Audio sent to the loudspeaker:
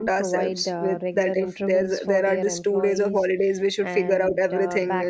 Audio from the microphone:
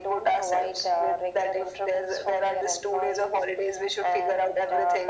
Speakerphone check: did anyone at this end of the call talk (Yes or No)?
No